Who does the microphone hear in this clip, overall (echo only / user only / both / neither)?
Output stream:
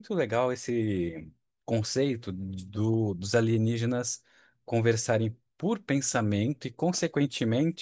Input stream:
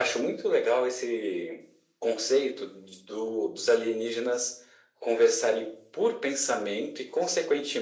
echo only